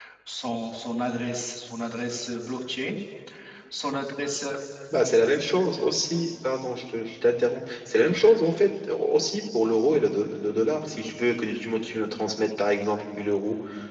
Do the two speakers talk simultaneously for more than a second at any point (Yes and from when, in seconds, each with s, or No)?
No